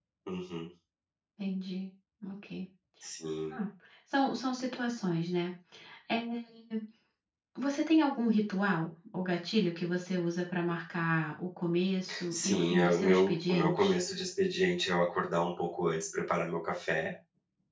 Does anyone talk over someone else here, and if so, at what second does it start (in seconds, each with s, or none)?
12.1 s